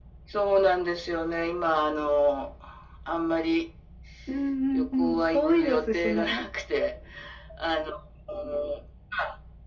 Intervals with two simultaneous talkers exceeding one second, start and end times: 4.7-6.4

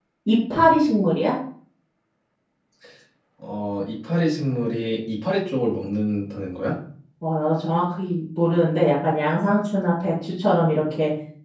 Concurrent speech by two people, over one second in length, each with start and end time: none

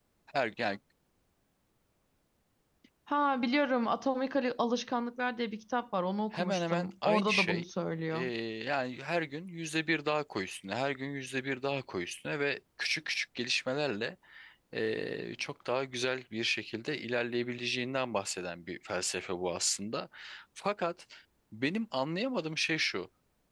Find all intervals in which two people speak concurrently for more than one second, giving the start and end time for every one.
6.3-7.7

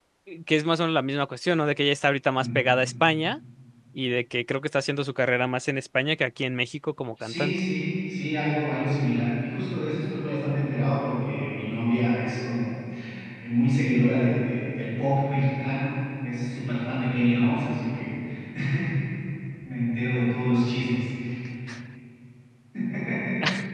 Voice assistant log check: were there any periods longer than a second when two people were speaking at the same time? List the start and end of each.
none

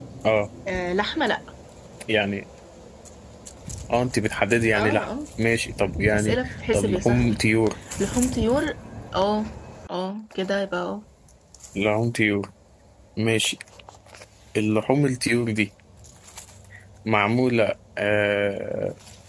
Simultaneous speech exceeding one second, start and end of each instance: 6.1-7.4

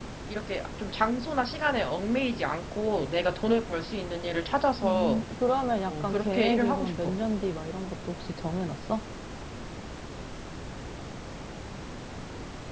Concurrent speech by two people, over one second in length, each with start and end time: 5.9-7.2

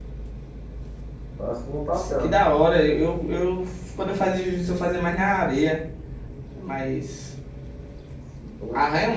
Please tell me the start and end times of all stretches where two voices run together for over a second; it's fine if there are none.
none

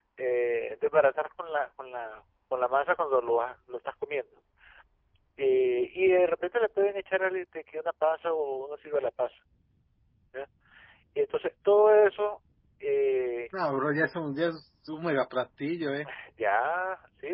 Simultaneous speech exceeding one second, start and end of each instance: none

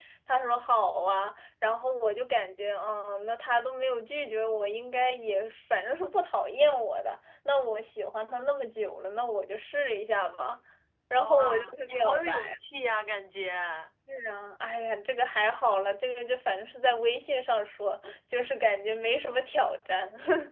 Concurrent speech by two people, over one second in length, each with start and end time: 11.1-12.3

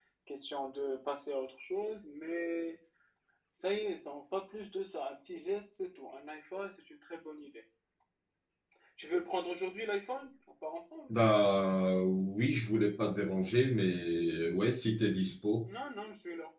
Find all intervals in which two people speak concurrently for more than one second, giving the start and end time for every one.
none

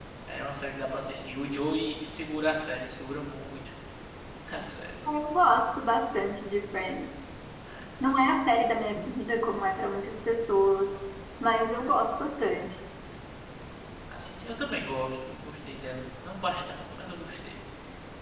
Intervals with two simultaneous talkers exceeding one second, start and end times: none

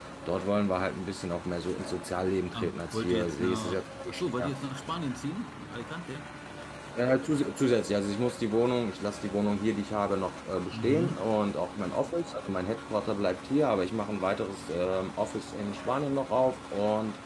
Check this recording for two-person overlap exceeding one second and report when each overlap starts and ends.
2.5-4.5

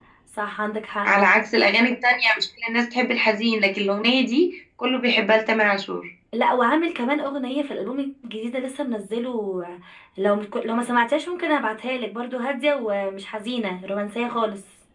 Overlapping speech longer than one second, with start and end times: none

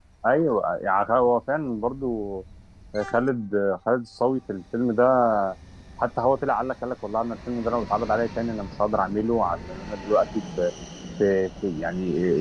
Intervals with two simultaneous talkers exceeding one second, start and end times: none

